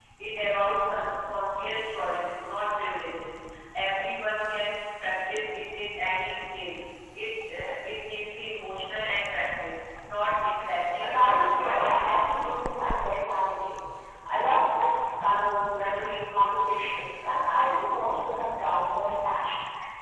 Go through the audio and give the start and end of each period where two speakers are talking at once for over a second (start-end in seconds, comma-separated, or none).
11.0-12.6